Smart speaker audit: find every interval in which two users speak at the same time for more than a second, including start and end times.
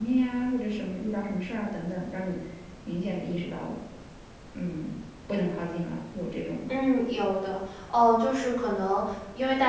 none

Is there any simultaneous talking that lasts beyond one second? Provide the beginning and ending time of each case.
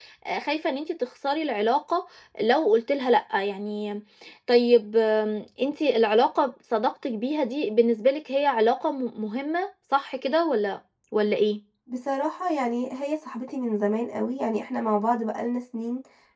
none

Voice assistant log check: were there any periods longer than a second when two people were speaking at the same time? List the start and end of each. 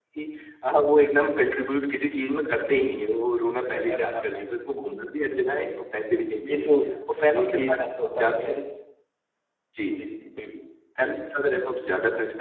none

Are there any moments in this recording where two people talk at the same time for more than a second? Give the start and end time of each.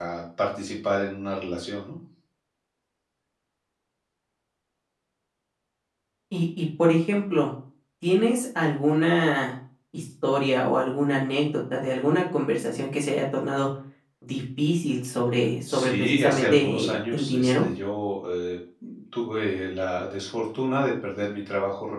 15.7-17.6

